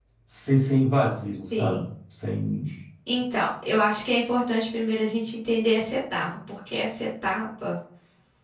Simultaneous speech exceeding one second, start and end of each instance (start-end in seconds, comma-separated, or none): none